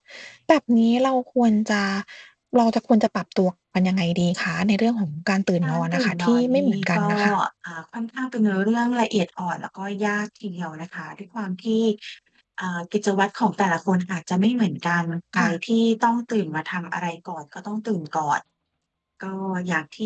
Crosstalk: present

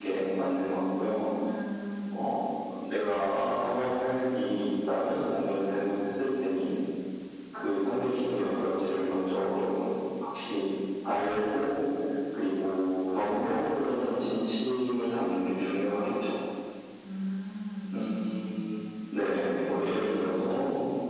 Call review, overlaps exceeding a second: present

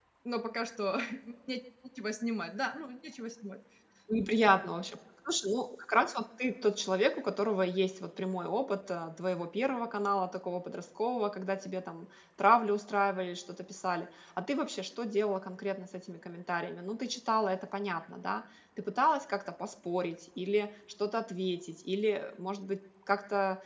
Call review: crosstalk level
none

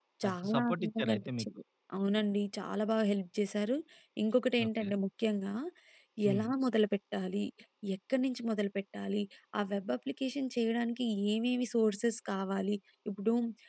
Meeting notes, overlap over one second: present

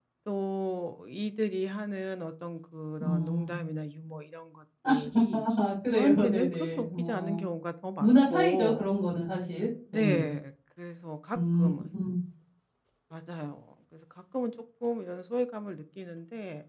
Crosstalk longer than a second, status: present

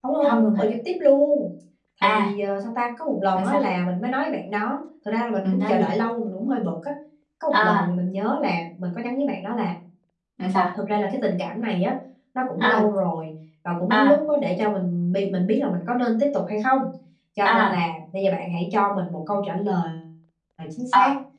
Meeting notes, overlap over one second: none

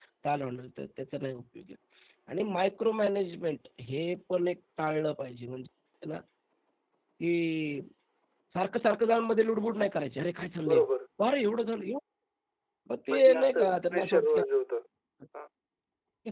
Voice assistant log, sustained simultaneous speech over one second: present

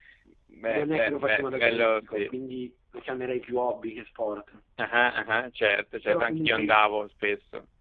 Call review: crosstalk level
present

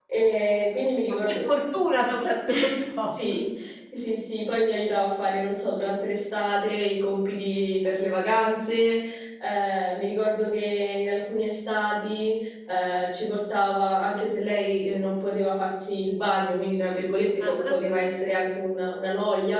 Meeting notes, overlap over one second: none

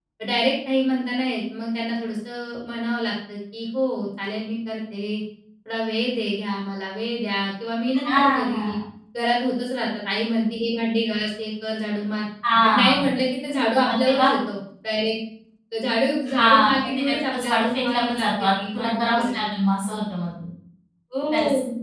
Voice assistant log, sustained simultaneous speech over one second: present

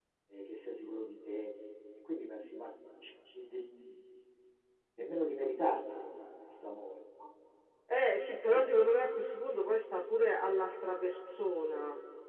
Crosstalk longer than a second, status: none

